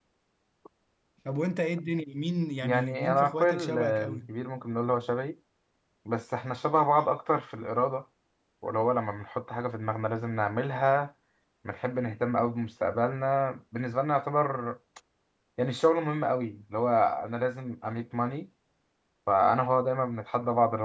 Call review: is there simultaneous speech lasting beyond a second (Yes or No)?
Yes